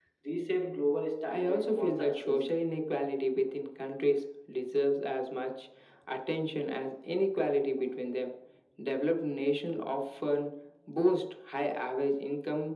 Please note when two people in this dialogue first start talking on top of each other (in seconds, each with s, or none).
1.3 s